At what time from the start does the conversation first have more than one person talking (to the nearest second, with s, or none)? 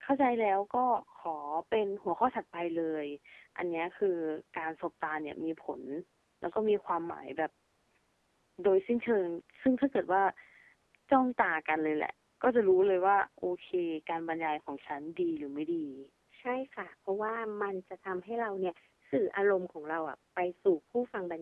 none